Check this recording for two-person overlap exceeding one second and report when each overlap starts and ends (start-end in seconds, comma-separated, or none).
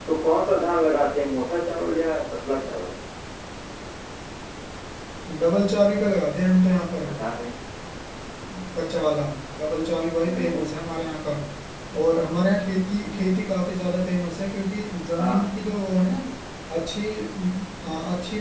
none